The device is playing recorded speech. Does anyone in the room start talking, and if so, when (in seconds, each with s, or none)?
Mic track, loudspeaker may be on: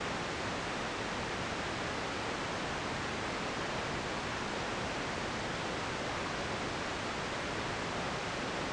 none